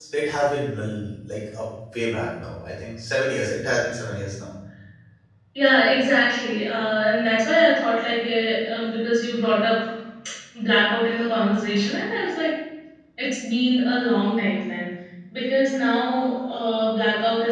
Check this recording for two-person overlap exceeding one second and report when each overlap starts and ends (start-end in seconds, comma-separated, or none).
none